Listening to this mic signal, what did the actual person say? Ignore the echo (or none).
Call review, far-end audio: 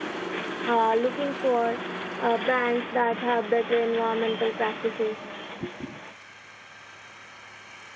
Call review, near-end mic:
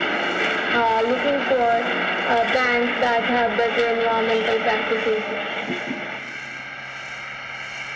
none